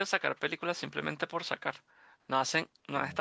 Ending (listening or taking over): listening